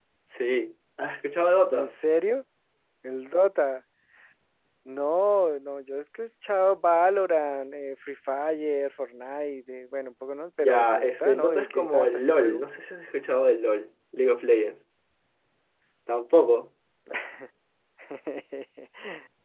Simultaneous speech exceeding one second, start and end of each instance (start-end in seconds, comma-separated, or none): 10.6-12.6